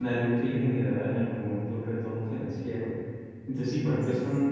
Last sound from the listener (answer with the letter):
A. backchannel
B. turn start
A